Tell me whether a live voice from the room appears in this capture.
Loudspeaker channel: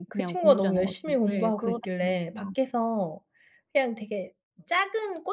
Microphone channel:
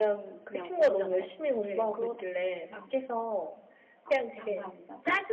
Yes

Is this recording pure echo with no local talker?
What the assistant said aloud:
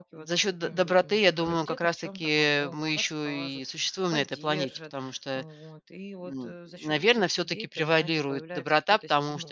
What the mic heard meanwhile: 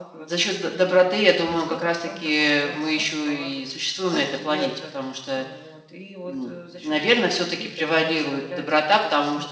Yes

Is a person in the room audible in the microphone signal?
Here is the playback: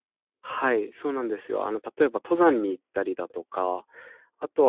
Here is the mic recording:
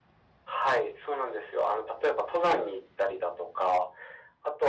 No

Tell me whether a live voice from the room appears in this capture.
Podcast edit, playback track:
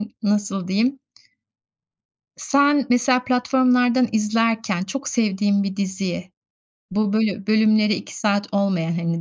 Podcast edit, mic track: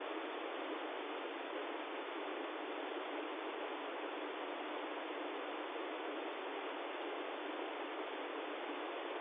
No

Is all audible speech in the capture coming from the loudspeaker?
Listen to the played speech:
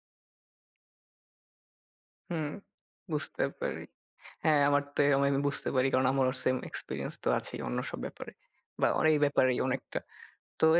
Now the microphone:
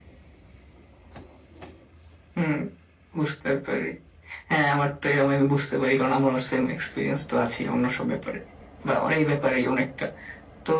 Yes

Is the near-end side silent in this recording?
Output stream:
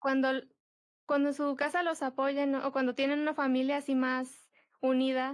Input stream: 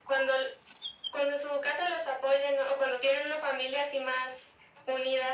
Yes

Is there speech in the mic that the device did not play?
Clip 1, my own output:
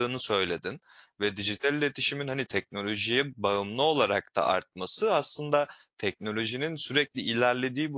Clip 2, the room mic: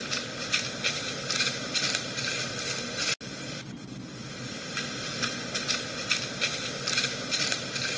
No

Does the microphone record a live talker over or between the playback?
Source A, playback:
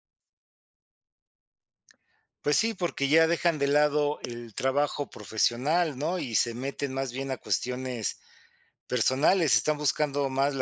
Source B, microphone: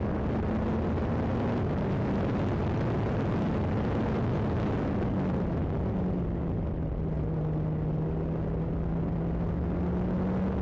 No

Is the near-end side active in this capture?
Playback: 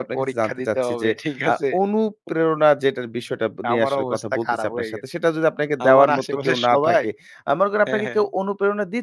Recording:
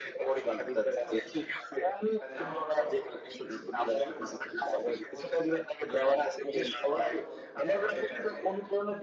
Yes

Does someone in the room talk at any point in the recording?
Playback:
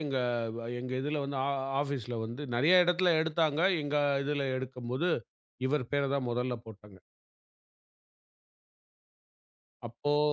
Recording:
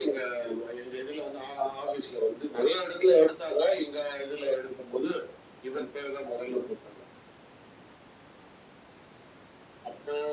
No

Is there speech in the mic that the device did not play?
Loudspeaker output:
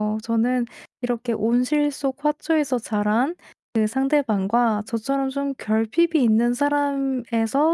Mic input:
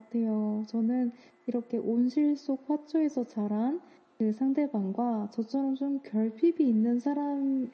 No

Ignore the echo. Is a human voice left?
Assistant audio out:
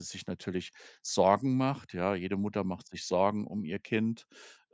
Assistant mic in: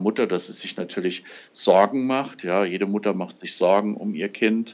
No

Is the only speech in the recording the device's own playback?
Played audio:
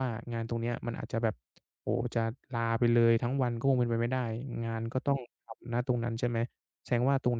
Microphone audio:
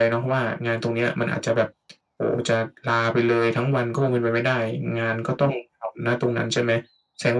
Yes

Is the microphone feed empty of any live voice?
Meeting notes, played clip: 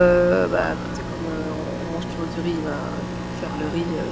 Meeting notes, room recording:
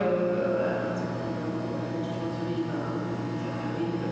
Yes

